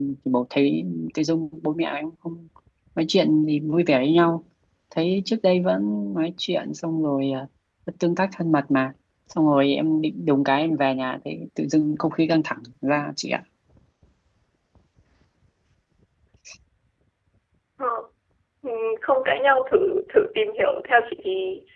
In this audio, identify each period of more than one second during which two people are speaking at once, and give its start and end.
none

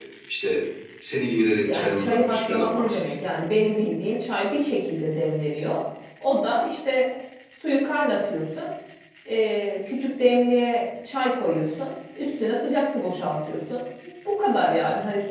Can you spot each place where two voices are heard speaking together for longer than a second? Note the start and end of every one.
1.6-3.1

